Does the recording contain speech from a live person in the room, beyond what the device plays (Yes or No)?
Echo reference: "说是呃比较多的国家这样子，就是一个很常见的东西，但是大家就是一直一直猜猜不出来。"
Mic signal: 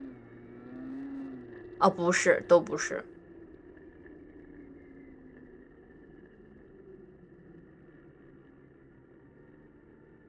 Yes